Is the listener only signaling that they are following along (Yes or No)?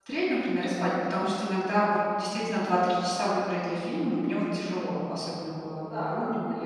No